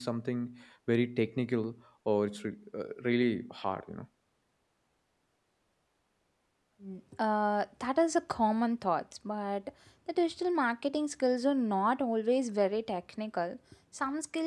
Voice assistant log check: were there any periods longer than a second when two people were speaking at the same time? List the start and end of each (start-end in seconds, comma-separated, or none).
none